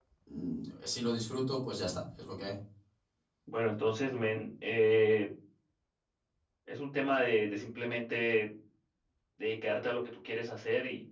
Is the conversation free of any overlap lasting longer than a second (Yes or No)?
Yes